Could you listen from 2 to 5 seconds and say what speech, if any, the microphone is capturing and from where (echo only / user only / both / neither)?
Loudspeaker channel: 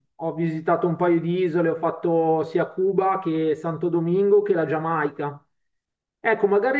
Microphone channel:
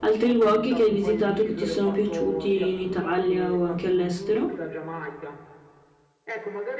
both